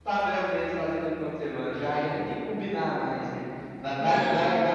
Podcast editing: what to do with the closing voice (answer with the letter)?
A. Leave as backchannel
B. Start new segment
A